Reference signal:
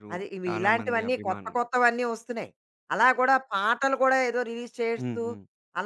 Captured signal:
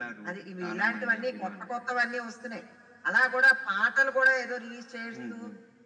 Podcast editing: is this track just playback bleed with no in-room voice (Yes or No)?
Yes